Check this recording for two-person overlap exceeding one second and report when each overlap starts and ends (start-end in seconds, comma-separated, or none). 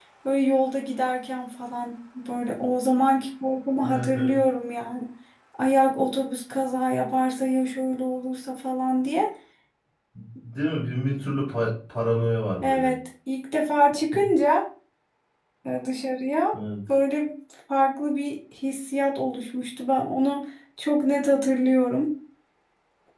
none